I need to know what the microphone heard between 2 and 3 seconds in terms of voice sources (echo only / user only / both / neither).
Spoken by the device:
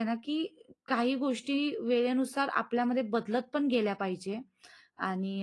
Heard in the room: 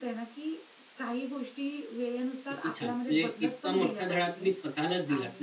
both